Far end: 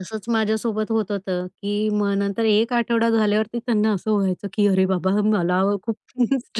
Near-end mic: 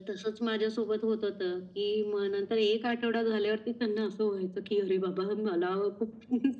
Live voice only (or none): none